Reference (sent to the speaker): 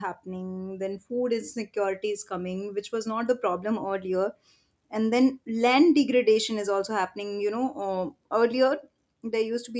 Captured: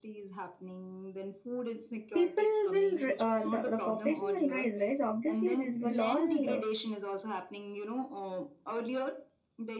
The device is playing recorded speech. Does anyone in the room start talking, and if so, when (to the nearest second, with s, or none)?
2 s